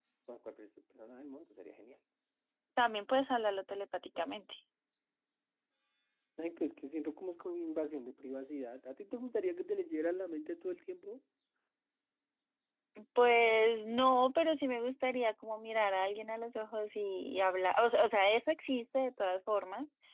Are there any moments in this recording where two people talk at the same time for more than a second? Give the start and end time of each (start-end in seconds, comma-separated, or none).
none